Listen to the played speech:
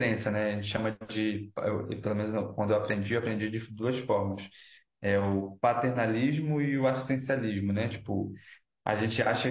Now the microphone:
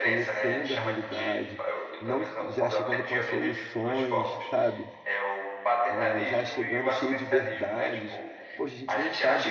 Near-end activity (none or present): present